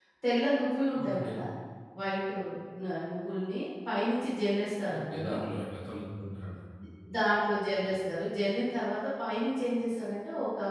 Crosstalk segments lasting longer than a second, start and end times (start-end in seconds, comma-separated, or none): none